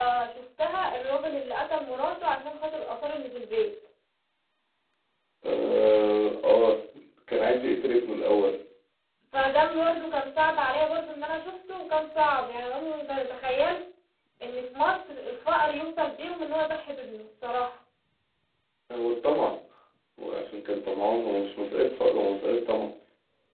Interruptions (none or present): none